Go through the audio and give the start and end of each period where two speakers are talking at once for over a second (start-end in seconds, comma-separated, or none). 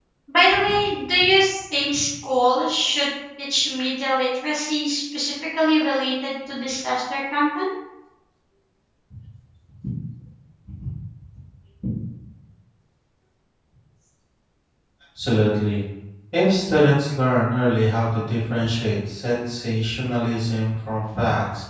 none